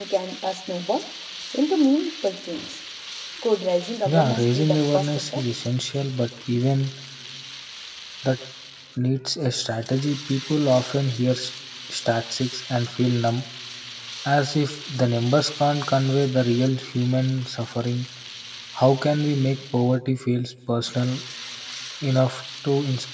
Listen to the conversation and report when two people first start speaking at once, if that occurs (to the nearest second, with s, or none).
4 s